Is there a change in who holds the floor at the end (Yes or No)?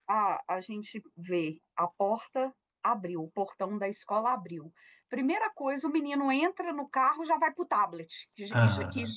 No